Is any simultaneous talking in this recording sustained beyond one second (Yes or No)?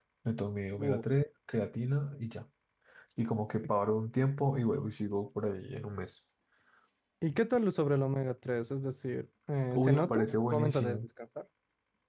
Yes